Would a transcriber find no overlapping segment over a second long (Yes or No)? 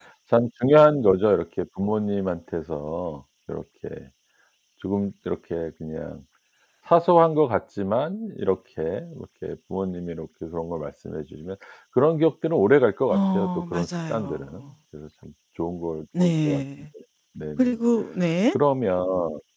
No